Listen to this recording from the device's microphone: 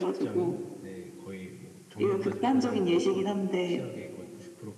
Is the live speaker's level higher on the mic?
No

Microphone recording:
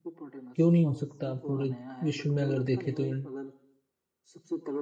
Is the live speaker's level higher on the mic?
Yes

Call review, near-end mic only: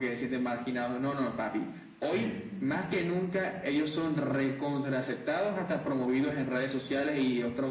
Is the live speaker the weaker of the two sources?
Yes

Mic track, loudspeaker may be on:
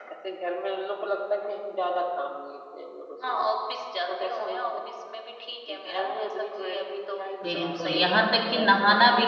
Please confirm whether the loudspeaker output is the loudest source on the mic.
No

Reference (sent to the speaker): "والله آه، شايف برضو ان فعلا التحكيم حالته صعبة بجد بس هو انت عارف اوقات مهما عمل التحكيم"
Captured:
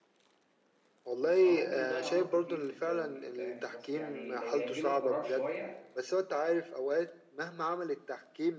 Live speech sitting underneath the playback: Yes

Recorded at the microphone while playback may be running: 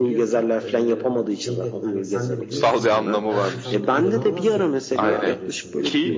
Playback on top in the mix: Yes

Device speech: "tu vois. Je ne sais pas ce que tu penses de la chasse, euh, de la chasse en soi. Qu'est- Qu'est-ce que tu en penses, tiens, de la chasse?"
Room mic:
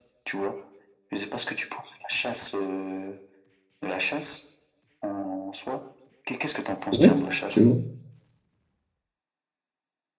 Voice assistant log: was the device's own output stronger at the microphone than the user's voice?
No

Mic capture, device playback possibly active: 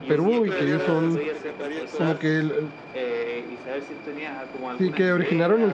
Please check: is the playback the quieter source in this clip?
Yes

